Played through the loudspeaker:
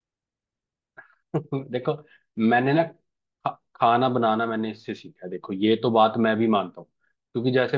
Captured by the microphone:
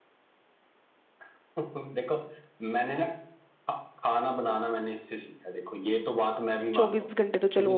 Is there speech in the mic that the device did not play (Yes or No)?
Yes